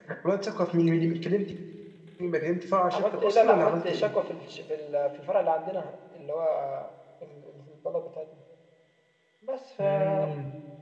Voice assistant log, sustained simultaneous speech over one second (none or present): present